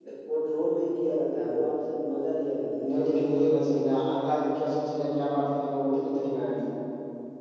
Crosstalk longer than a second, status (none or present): none